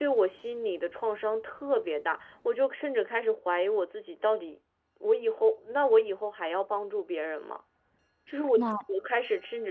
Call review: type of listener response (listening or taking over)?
listening